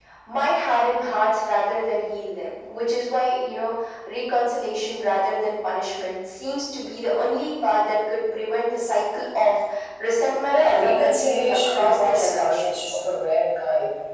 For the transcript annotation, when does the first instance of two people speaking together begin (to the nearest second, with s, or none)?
10 s